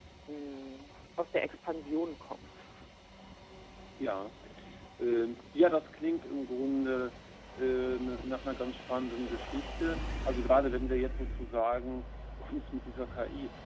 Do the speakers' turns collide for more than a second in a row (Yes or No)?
No